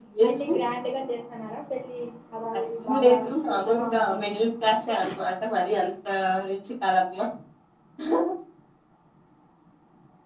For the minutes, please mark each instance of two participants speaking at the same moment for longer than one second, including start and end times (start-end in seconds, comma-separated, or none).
2.8-4.3